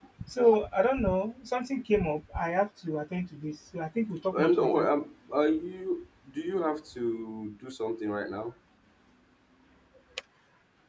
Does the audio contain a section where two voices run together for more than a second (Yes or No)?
No